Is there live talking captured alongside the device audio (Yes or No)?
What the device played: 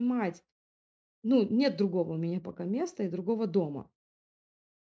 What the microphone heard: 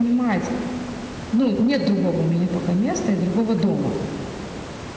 Yes